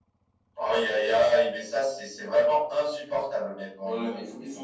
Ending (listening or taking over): taking over